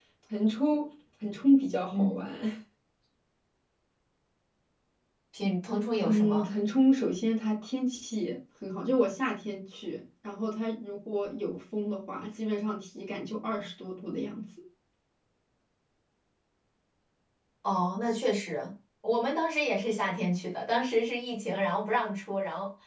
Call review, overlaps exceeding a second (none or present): none